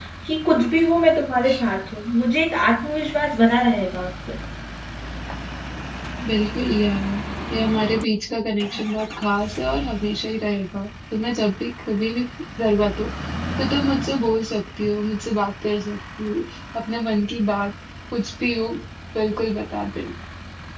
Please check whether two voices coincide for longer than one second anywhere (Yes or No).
No